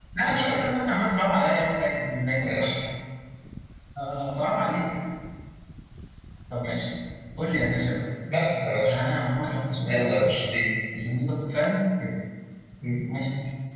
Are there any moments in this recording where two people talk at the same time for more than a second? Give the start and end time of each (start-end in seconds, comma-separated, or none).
none